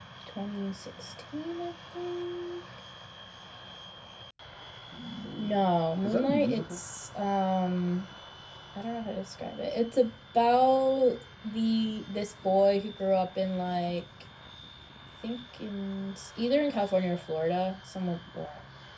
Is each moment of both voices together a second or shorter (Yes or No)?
No